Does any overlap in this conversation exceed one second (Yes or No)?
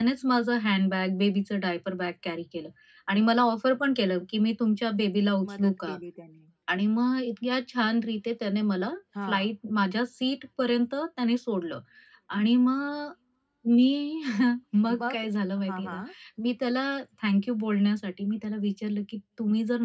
No